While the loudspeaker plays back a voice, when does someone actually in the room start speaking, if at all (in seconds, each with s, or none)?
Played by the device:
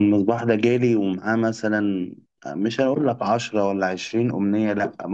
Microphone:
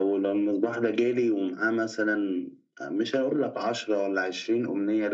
none